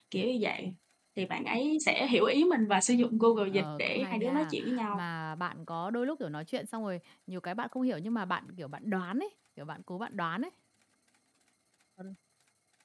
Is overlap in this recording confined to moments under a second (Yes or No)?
No